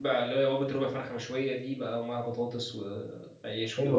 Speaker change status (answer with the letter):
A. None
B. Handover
B